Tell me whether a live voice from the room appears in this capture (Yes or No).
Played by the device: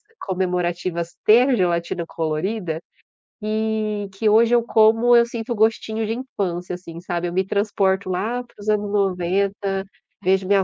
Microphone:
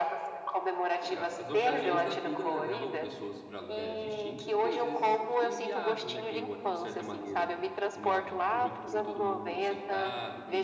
Yes